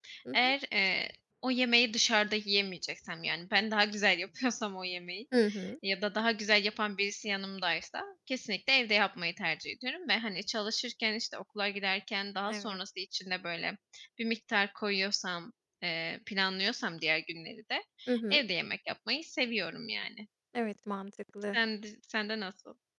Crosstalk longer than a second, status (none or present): none